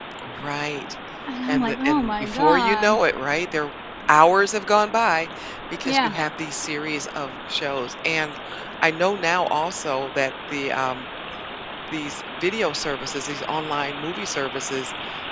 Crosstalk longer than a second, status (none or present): present